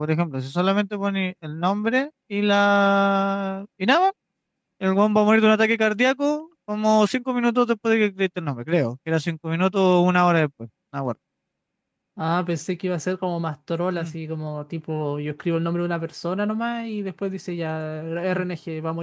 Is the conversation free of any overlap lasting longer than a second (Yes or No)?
Yes